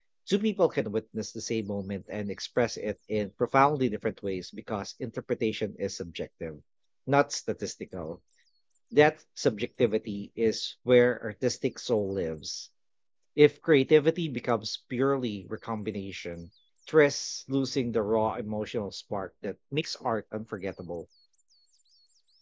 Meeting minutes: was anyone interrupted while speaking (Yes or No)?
No